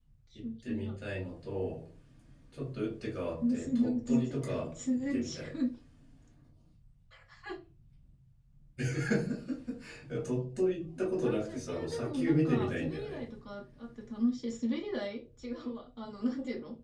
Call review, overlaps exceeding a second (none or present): present